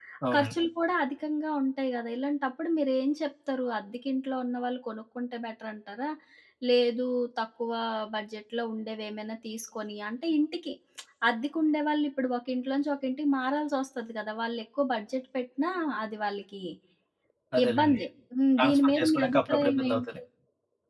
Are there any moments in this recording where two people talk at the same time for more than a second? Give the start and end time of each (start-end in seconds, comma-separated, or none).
18.6-20.0